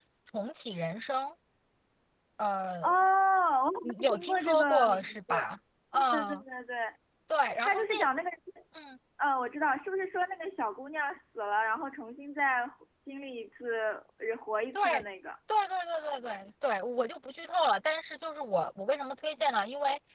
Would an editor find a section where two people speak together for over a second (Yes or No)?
Yes